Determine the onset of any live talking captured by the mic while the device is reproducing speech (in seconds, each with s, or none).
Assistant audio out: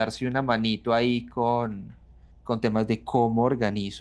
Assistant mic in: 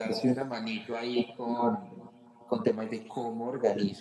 none